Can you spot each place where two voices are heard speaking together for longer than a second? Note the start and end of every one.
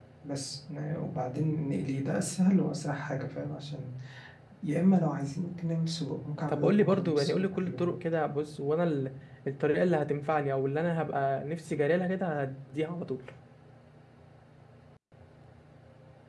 6.5-7.8

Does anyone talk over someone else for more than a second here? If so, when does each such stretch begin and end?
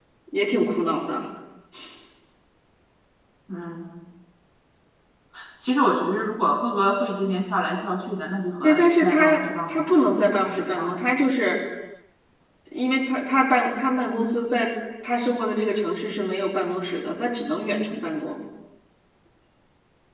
8.6-11.0

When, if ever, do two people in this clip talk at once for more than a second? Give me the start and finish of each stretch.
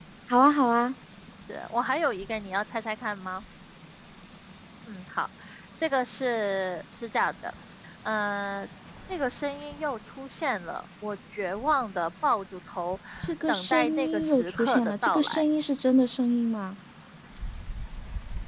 13.5-15.4

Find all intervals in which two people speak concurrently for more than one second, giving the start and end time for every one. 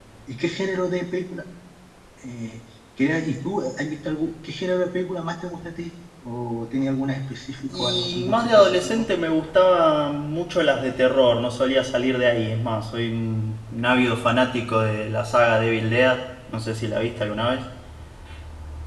7.7-9.1

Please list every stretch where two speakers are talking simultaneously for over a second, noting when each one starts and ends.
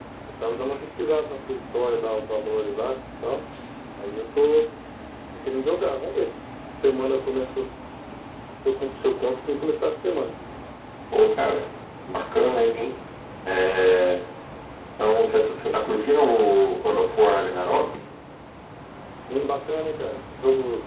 none

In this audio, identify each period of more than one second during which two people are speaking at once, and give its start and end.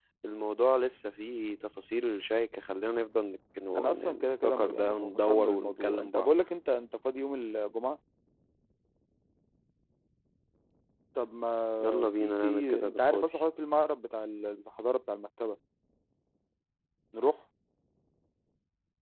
3.8-6.3, 11.8-13.3

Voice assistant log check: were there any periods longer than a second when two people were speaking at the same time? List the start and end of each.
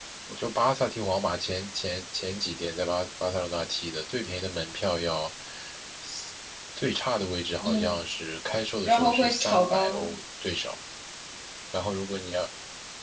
8.8-10.2

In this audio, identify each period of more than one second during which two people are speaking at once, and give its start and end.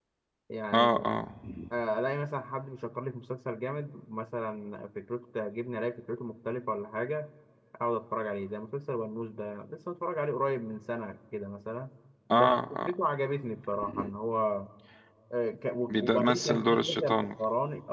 15.9-17.3

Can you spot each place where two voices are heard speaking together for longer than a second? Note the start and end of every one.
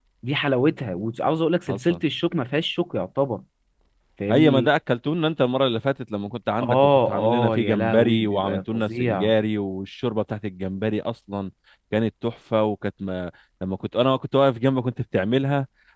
6.6-9.3

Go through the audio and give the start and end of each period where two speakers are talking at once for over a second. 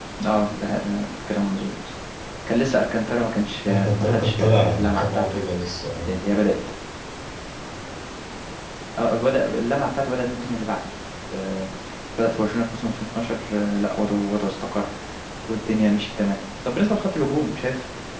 3.7-5.4

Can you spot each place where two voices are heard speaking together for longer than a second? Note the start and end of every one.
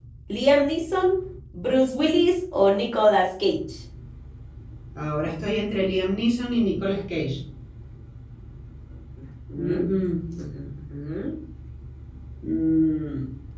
none

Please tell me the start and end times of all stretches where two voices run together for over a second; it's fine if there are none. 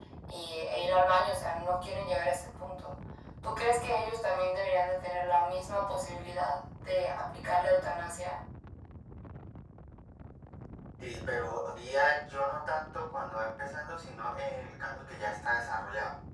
none

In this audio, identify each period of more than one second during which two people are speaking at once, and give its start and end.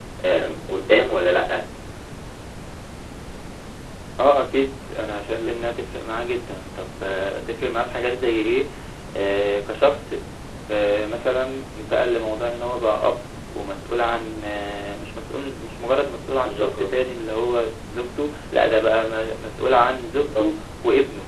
none

